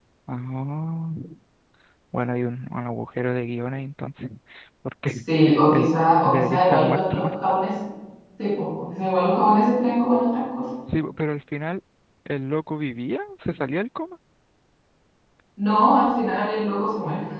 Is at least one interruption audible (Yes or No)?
Yes